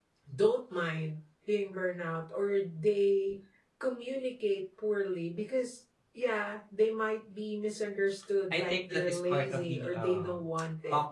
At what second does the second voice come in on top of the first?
8.5 s

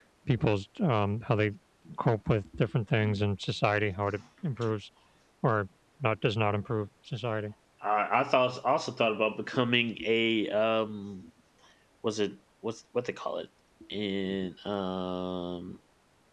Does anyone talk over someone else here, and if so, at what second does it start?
none

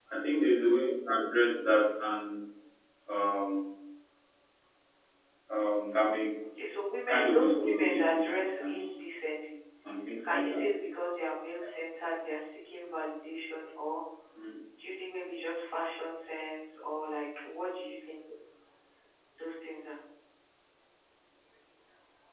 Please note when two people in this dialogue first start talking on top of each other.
7.0 s

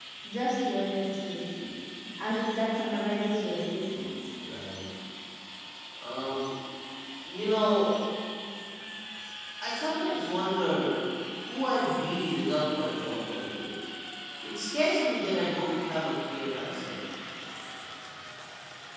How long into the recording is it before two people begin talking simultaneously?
none

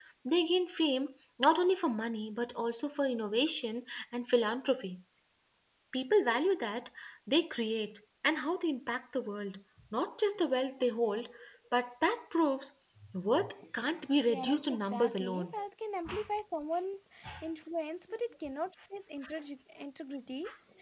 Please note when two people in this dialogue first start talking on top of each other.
14.2 s

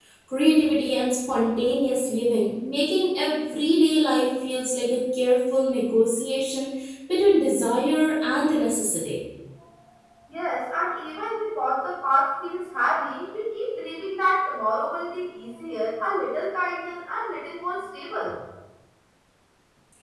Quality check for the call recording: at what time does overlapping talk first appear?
none

